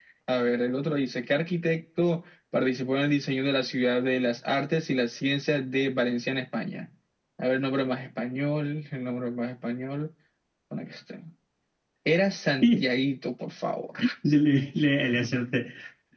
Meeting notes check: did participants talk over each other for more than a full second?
No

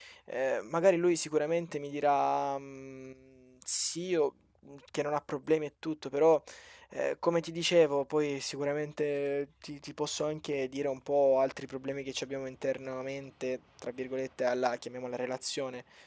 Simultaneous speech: No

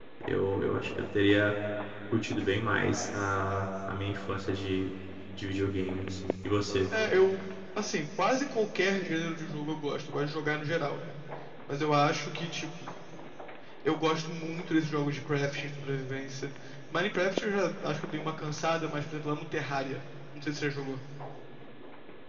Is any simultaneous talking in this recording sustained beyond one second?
No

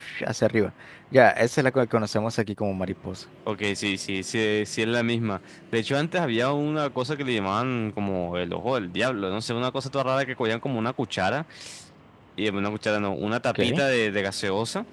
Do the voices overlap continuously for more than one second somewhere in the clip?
No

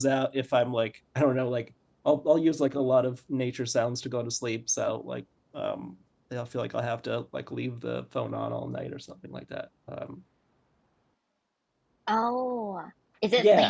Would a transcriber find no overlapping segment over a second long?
Yes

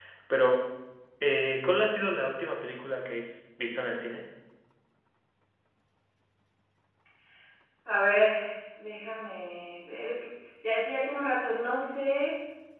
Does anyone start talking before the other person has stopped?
No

